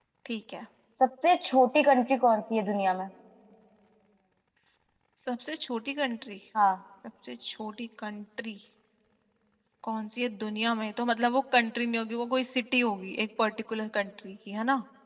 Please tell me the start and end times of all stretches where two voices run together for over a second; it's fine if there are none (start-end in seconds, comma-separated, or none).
none